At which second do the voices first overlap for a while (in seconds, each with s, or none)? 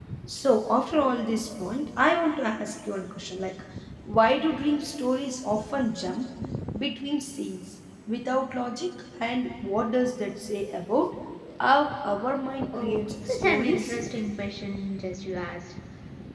12.7 s